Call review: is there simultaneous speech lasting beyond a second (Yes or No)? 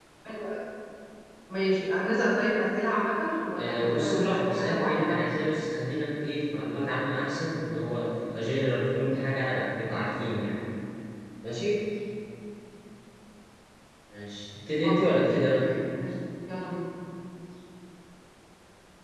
Yes